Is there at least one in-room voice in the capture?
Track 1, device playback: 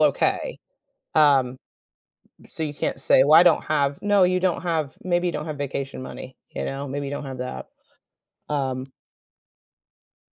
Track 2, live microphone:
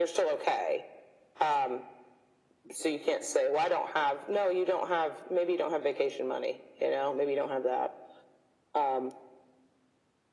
No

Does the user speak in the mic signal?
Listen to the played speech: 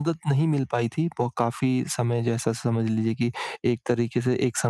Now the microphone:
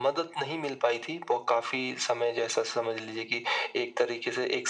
No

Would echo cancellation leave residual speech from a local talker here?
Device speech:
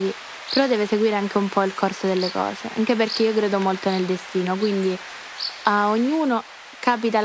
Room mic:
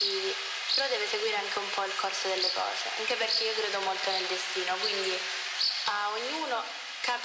No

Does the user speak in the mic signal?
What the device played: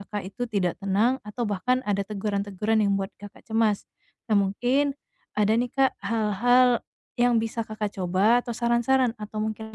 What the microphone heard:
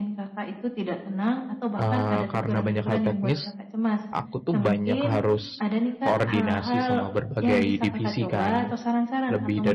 Yes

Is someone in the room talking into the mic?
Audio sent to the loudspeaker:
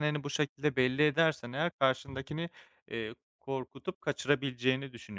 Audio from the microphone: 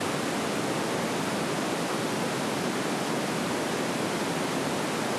No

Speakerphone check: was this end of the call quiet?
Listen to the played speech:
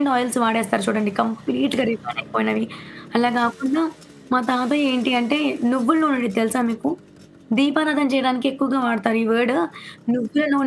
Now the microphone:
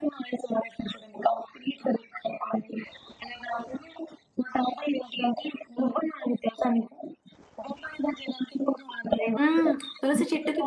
No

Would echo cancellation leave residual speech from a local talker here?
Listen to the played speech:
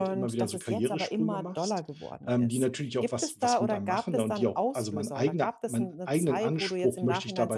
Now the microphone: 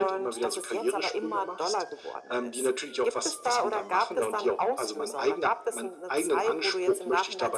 No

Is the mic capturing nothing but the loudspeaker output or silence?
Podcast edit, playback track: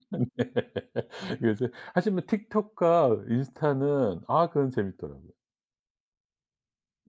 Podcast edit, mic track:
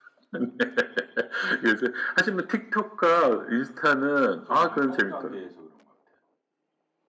No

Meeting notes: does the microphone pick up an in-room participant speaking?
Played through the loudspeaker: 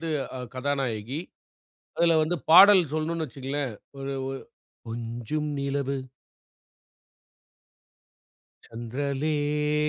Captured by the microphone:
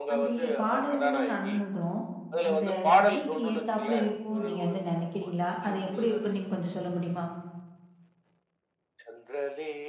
Yes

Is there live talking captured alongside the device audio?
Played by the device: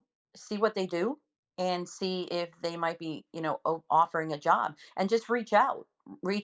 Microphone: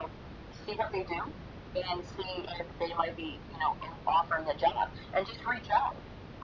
No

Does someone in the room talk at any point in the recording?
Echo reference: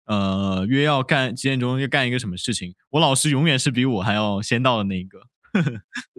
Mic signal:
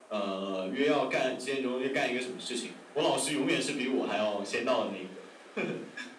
No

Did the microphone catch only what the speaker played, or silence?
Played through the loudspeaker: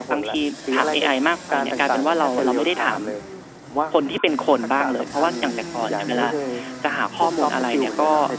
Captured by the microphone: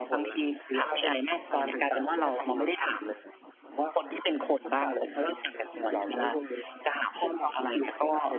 Yes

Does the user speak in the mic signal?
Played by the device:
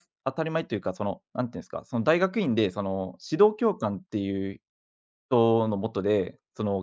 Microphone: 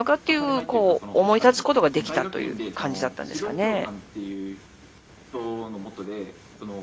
Yes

